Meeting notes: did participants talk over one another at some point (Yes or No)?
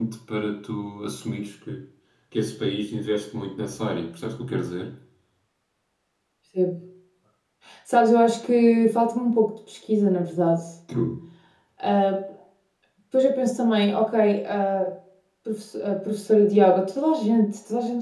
No